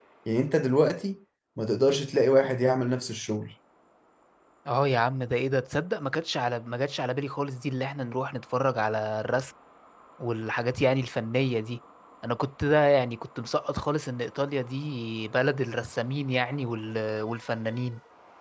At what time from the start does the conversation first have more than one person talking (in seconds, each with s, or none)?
none